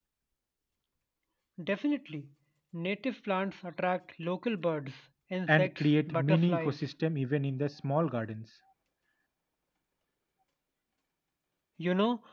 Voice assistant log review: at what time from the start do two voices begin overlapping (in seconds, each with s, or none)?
5.5 s